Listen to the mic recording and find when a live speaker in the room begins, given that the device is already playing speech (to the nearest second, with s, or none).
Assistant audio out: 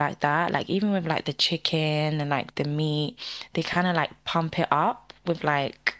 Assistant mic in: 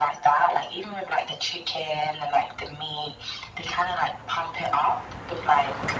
none